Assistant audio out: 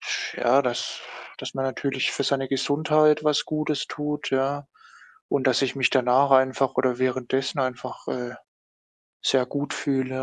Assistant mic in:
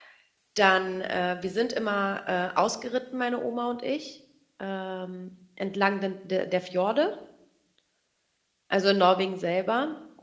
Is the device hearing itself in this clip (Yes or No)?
No